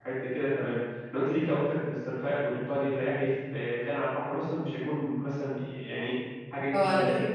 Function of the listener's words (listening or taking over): taking over